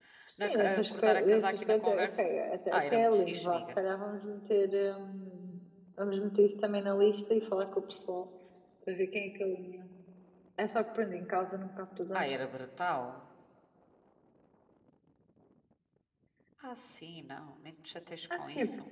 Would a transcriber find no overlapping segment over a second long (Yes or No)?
No